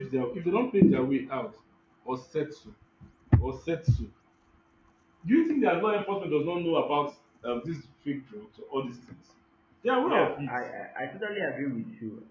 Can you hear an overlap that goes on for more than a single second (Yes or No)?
No